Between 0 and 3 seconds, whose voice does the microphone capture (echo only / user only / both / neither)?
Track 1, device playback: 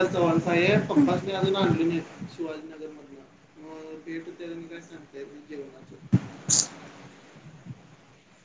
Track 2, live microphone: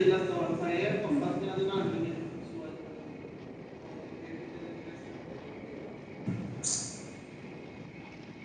echo only